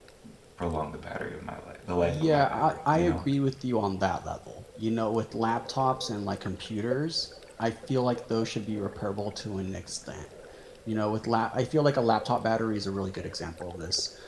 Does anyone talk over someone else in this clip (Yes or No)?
Yes